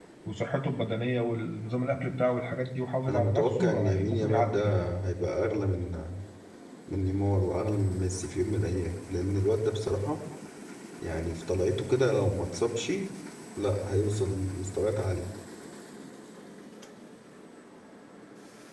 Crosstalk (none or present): present